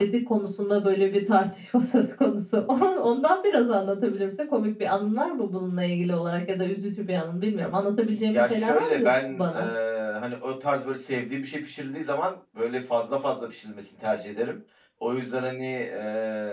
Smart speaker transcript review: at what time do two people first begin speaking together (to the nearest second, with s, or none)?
8 s